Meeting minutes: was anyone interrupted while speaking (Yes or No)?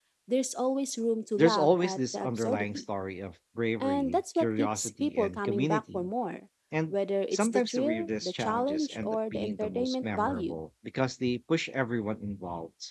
Yes